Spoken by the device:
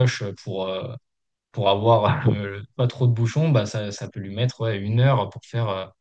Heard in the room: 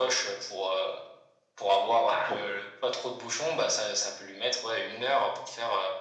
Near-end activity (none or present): none